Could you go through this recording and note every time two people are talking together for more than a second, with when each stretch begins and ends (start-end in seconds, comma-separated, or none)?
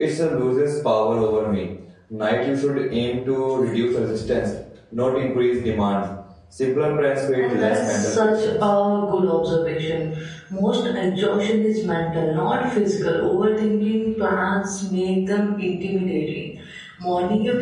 7.4-8.7